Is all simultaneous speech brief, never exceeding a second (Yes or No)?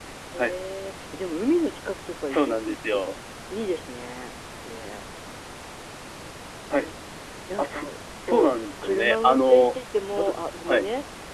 No